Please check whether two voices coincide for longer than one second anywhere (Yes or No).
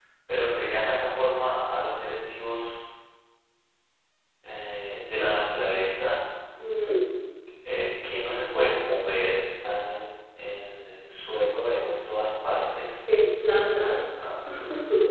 No